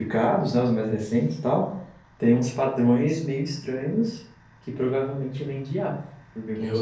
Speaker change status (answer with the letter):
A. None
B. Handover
B